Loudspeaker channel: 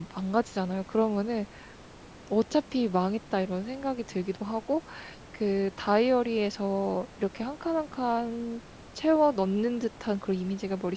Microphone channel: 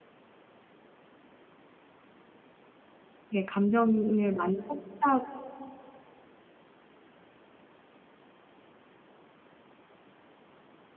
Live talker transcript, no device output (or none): 이게 감정을 많이 쏟다